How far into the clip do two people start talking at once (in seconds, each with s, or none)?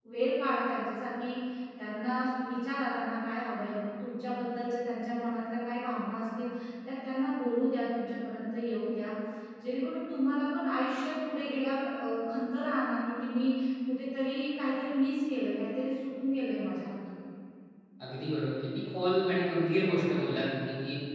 none